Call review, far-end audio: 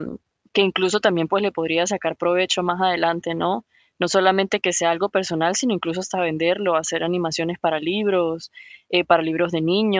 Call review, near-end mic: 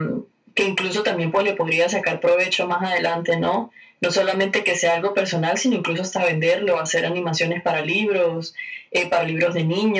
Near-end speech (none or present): none